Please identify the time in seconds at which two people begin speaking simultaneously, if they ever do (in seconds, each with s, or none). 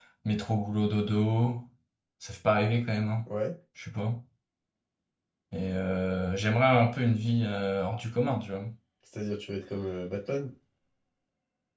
none